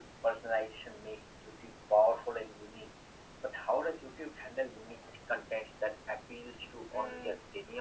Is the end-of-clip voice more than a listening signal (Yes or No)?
Yes